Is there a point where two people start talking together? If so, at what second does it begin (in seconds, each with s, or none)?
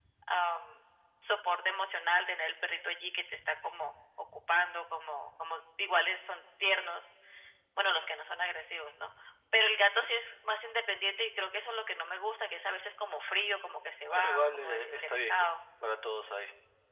14.1 s